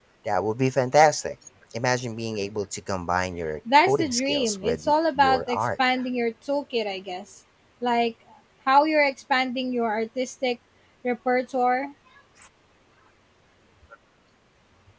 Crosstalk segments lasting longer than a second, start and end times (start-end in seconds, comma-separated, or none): 3.8-5.7